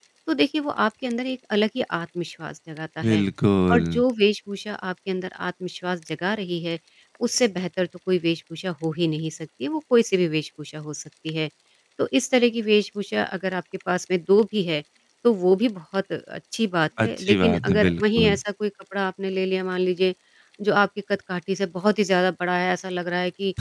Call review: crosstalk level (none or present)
present